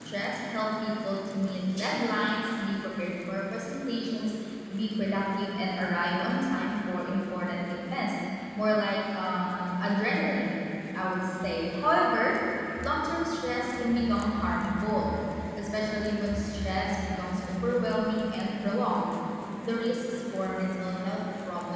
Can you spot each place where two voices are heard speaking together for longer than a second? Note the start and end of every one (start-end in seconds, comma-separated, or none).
none